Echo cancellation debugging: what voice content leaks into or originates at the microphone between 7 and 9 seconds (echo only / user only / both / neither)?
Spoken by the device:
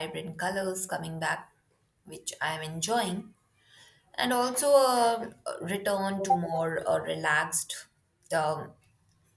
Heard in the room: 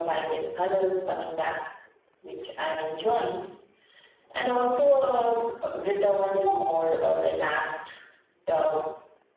echo only